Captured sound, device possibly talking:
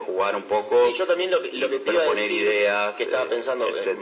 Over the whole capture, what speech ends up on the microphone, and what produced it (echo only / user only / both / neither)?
echo only